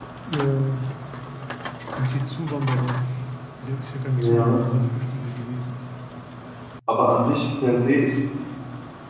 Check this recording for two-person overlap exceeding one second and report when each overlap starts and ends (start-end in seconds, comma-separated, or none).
none